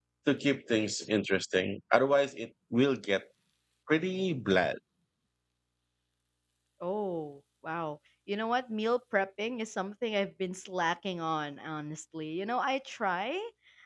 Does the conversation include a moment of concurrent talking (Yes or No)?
No